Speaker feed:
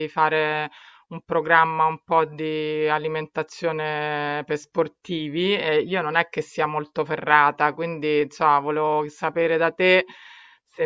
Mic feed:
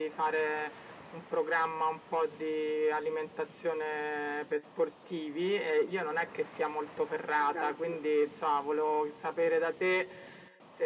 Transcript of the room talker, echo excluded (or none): ah, bravo, sì,